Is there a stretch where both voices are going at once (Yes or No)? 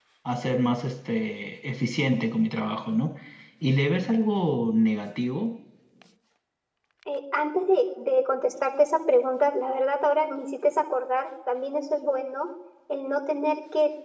No